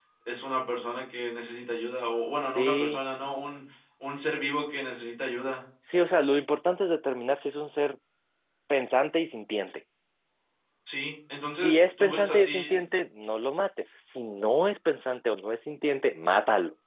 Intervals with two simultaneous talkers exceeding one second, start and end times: 11.5-12.7

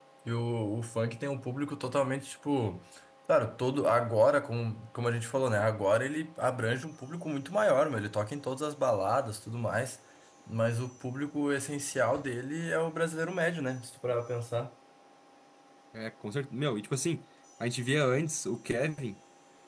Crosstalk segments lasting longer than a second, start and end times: none

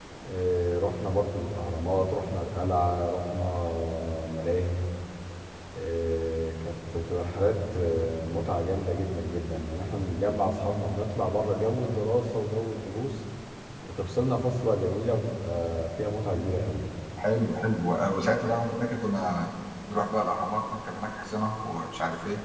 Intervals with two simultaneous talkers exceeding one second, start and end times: none

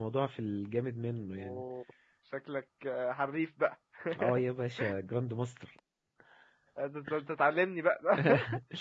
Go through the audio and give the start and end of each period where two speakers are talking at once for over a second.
none

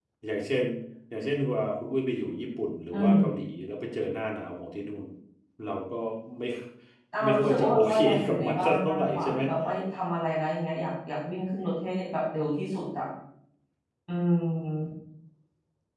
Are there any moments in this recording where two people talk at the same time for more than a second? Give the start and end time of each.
7.2-9.4

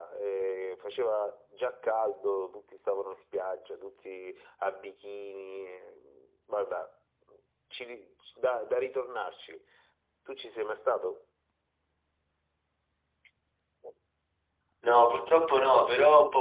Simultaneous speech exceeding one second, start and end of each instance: none

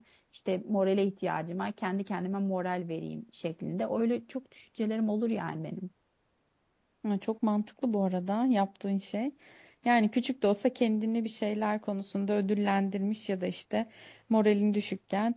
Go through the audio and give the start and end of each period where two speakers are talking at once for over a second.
none

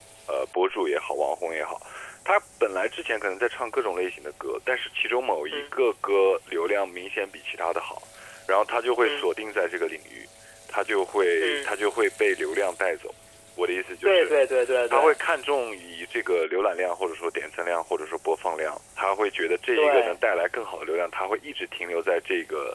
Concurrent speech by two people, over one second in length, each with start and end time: none

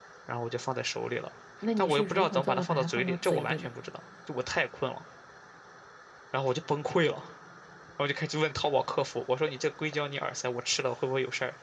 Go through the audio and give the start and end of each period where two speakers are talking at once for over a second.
1.8-3.7

